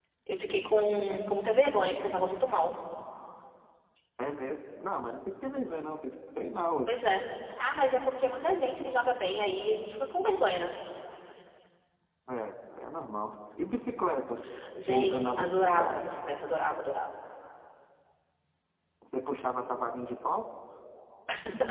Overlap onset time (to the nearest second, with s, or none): 15 s